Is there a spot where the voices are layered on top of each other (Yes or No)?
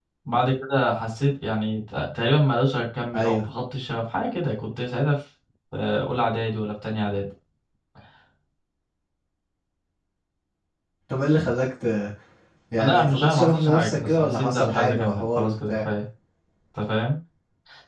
Yes